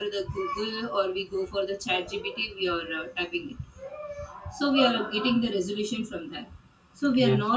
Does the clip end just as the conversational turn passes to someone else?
No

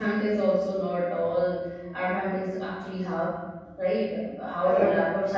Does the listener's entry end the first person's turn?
No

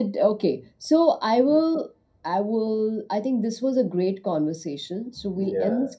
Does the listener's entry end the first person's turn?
No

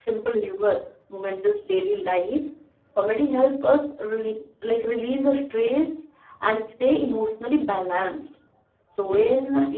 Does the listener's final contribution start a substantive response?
No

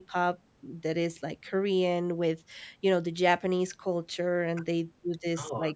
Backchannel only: Yes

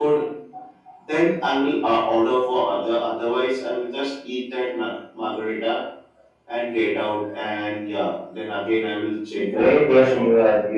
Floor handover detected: Yes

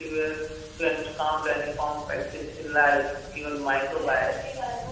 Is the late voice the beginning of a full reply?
Yes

